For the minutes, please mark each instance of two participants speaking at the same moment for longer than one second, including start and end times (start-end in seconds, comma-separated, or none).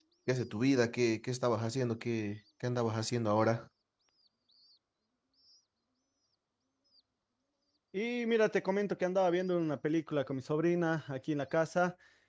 none